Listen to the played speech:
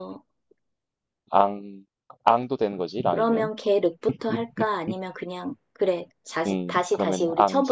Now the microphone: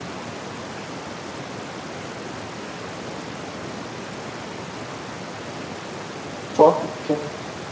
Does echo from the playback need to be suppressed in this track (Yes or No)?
No